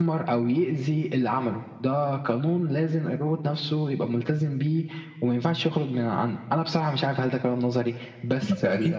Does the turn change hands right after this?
Yes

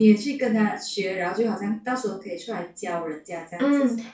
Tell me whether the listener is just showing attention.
No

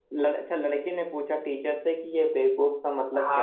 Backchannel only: No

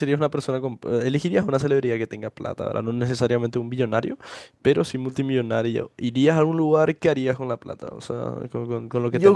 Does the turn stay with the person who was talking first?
No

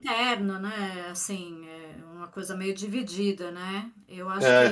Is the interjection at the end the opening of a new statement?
No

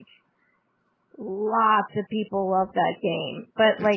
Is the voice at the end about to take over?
No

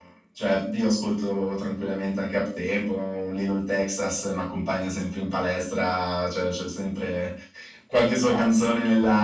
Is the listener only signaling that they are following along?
Yes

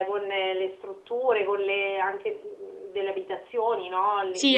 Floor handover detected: Yes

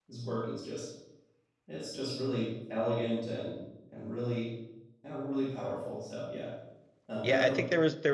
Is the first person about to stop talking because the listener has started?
Yes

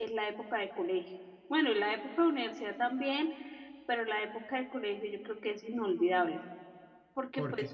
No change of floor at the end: Yes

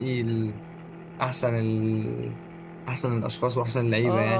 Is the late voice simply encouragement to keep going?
No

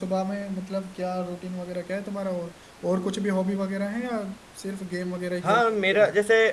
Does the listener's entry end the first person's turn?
Yes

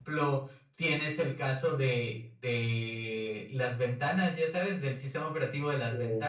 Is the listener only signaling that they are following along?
Yes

